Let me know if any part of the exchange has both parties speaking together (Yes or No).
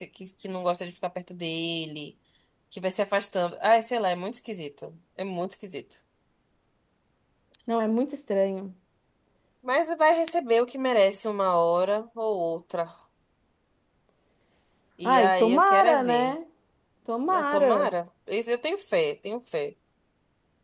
Yes